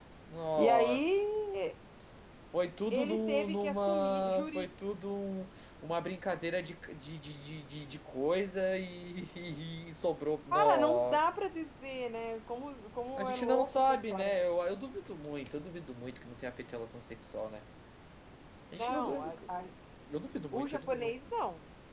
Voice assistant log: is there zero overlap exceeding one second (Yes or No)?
No